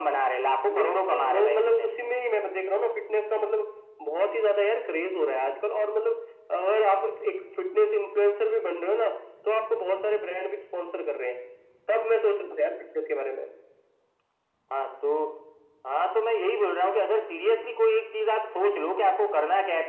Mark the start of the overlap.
1 s

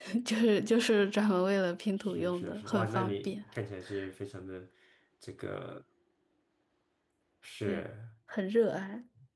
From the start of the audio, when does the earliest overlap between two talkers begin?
2 s

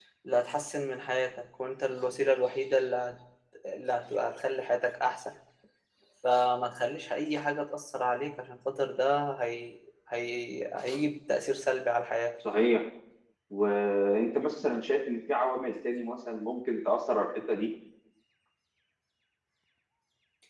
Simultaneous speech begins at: none

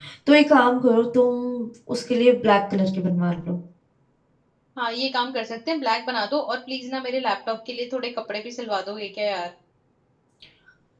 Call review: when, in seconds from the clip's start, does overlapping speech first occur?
none

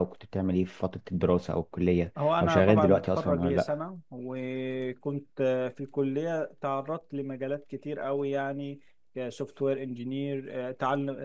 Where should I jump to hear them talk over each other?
2 s

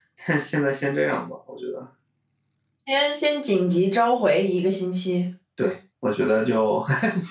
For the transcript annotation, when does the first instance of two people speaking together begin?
none

